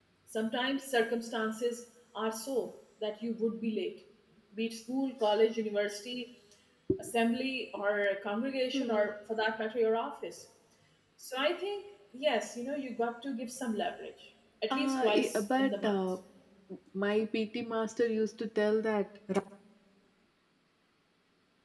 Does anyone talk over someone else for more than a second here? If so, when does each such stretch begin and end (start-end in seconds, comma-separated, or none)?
14.7-16.0